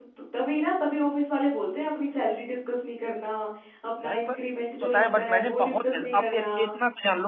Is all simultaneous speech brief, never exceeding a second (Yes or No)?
No